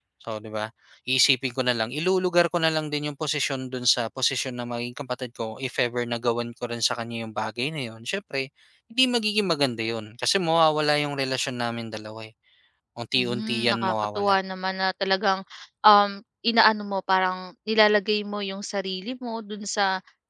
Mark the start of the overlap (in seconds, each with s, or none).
13.1 s